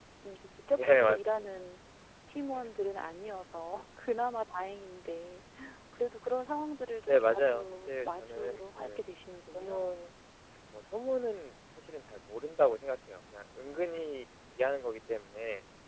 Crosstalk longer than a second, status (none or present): present